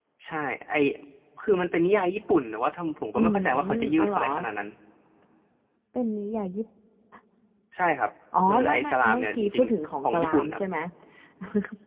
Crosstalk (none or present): present